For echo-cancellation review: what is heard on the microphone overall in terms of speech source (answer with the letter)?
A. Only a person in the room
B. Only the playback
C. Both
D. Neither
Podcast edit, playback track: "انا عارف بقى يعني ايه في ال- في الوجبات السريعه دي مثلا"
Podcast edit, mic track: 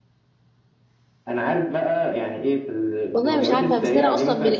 C